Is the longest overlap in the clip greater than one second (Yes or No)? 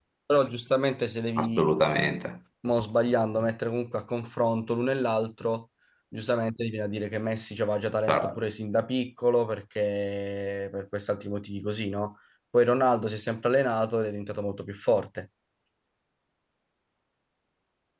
No